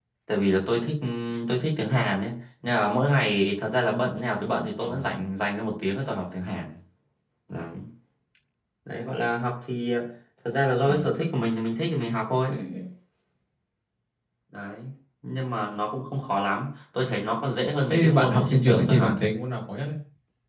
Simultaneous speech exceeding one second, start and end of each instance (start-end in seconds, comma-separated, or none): 17.9-19.1